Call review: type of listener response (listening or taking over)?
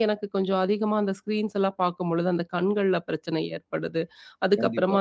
listening